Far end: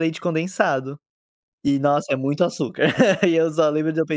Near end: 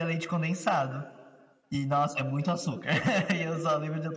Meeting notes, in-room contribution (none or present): none